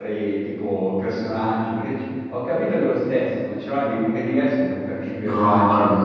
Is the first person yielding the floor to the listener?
Yes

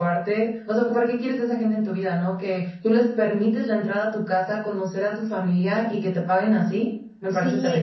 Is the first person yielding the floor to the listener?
Yes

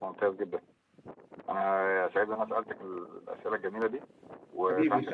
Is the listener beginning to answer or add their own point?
Yes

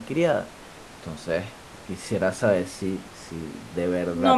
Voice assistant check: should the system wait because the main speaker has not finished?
No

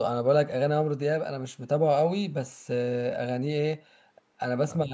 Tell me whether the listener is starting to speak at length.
No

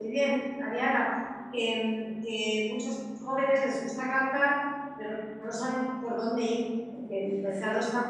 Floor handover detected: No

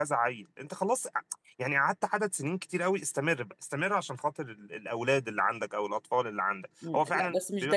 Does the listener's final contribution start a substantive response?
Yes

